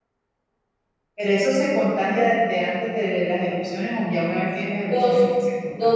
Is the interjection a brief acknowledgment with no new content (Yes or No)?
No